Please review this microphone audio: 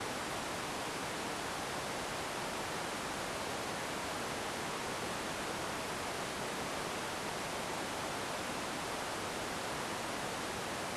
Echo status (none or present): none